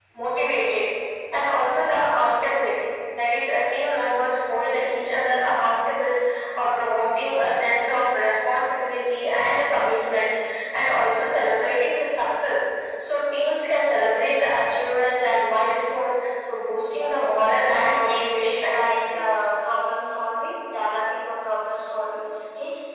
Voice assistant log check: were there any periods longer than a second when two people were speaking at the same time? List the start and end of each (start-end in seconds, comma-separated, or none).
17.8-19.2